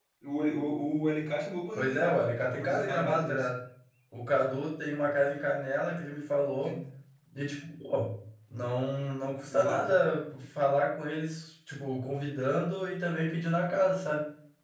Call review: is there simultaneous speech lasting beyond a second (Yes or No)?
Yes